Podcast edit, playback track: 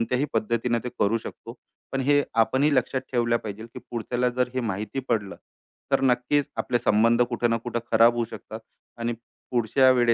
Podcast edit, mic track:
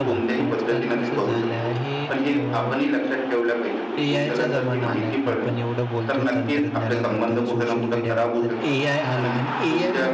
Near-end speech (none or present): present